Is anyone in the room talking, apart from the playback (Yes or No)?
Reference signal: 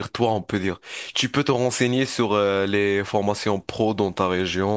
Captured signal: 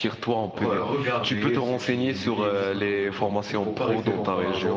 Yes